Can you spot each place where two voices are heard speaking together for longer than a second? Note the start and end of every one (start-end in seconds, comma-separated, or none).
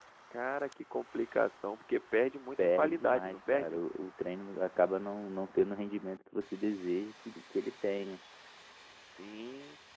2.6-3.8